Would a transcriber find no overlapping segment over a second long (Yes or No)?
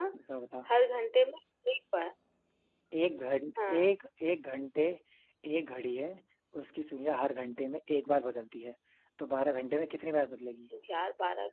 Yes